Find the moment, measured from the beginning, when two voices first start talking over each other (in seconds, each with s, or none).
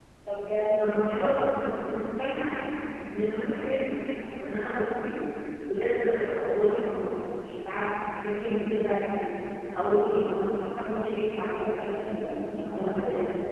11.4 s